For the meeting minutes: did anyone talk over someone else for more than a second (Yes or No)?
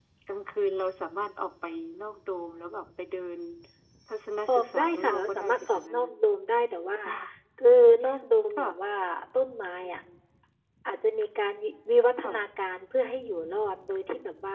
Yes